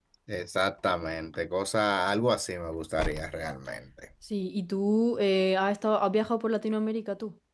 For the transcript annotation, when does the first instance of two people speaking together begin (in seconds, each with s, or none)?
none